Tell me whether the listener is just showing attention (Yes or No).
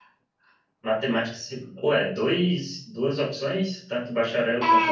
No